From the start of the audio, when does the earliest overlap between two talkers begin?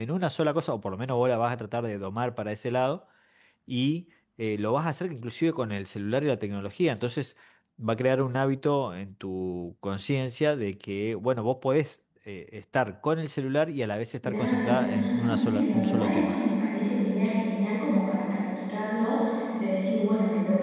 14.2 s

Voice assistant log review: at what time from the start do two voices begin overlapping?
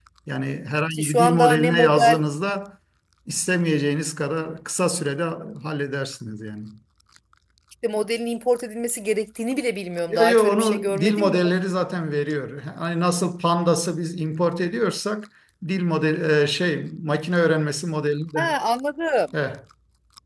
0.9 s

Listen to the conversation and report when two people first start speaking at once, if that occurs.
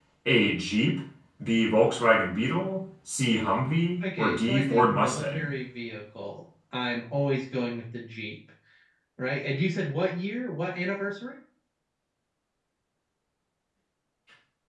4.0 s

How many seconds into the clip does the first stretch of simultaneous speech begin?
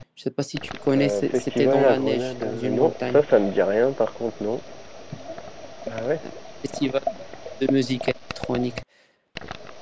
1.0 s

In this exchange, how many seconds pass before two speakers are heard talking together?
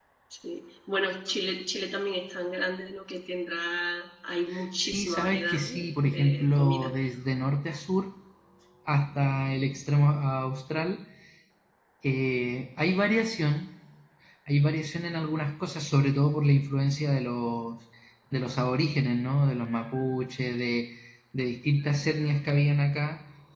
4.8 s

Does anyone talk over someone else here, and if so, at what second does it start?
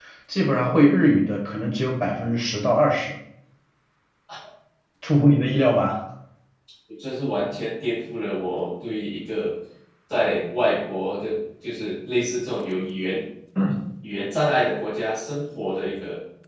none

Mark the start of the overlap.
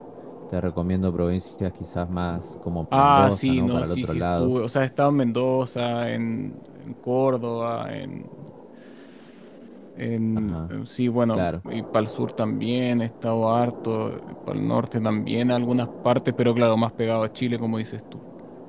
2.9 s

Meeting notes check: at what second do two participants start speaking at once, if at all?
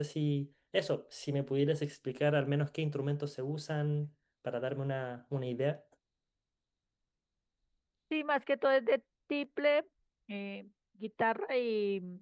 none

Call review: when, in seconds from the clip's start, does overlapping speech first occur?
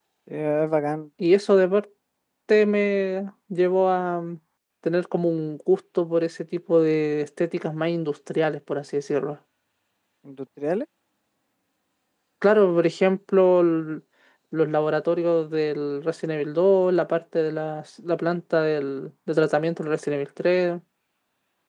none

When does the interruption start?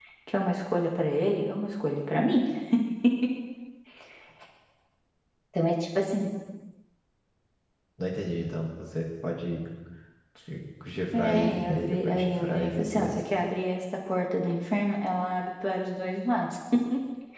11.1 s

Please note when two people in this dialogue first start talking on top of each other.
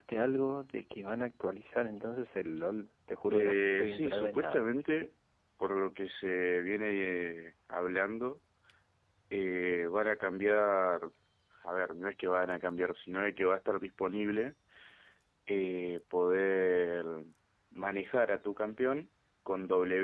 3.3 s

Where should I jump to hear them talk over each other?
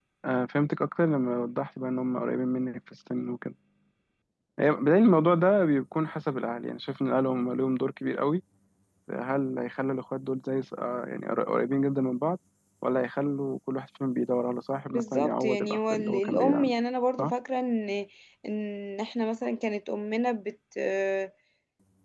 14.9 s

